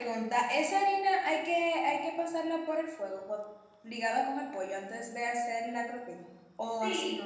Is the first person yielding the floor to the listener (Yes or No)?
Yes